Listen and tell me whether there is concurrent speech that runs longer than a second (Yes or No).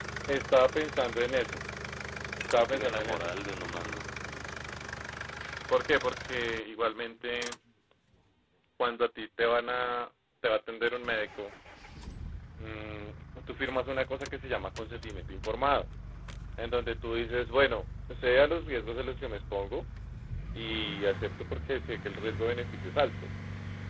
Yes